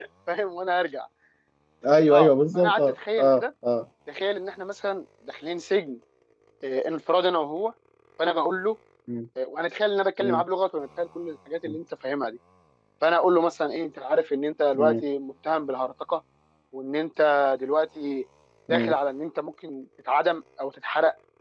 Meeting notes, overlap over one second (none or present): present